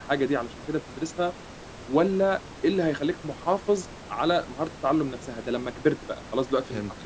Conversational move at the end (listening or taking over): listening